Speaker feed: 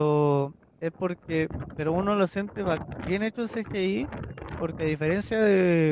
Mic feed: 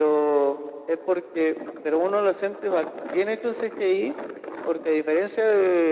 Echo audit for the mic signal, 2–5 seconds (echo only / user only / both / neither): echo only